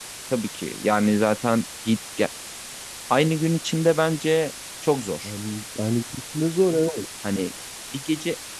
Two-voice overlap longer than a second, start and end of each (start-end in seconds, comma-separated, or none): none